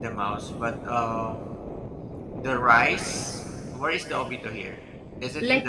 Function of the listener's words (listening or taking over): taking over